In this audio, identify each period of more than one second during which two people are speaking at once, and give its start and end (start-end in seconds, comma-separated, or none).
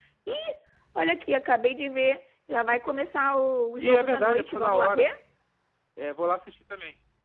3.8-5.1